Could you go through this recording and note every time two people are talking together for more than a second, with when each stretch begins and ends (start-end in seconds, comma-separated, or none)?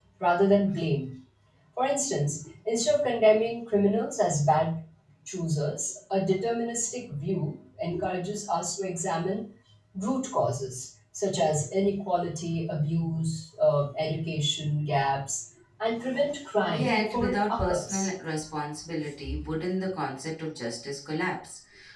16.7-18.1